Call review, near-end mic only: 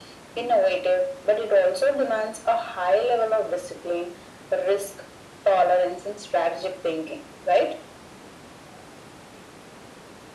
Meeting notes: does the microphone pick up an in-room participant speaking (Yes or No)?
No